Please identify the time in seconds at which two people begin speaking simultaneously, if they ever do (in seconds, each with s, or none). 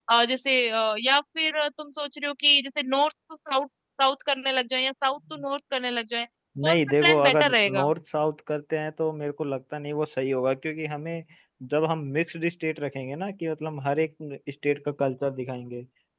6.6 s